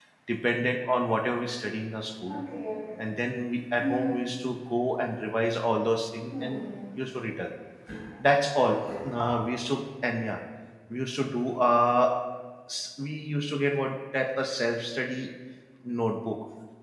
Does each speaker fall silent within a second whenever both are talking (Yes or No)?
Yes